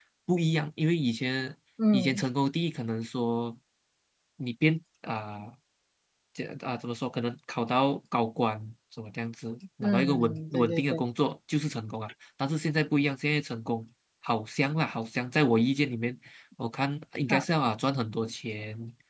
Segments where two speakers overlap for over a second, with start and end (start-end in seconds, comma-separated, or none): 9.8-11.0